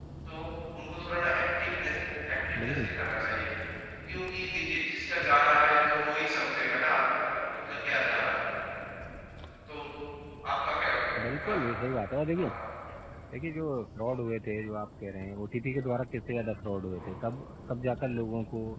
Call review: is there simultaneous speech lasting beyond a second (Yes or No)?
No